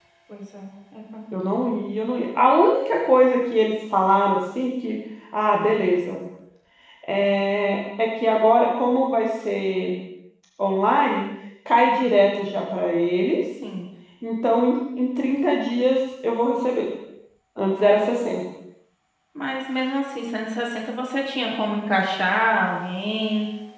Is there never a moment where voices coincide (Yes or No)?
Yes